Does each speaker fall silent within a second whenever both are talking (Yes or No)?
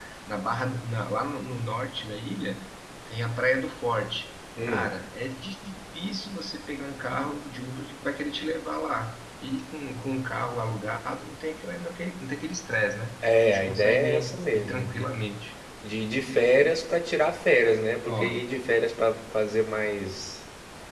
No